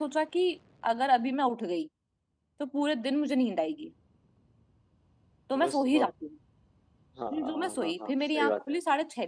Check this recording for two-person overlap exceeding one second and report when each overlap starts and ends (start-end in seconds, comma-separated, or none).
7.3-8.8